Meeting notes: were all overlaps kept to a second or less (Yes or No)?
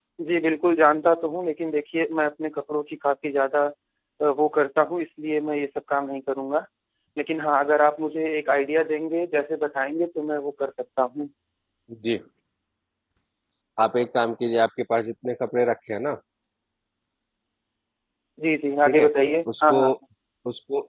Yes